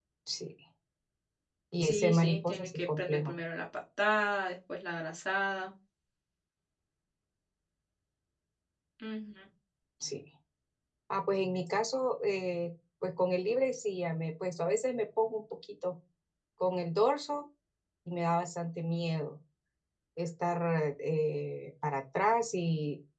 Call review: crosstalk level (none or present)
present